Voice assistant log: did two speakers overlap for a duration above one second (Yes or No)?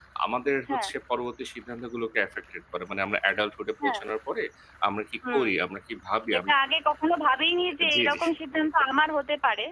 No